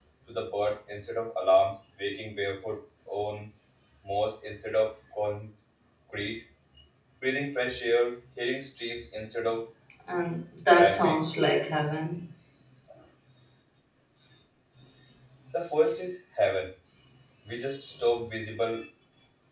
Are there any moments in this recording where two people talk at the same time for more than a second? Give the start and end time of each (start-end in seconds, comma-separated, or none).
none